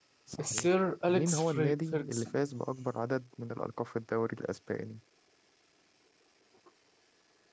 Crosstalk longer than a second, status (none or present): present